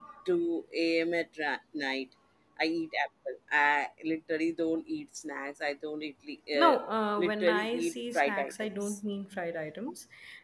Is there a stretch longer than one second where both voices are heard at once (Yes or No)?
Yes